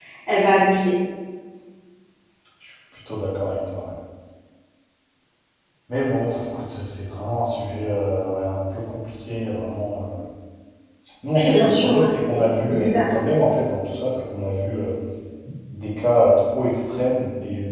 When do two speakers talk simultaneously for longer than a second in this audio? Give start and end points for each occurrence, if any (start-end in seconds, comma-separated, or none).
11.4-13.1